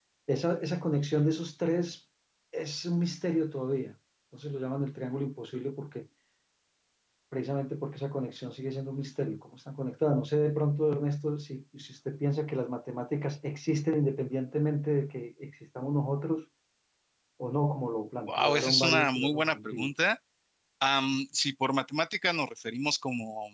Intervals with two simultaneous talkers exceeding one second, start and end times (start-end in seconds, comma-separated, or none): 18.3-19.9